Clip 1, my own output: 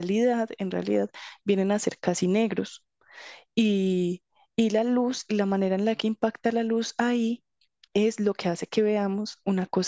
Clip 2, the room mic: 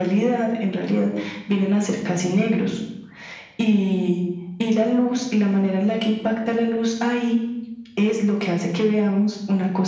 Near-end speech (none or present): none